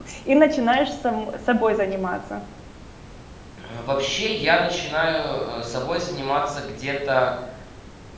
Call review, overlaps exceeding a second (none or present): none